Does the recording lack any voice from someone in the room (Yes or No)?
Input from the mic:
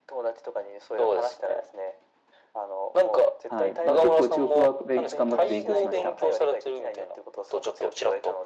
No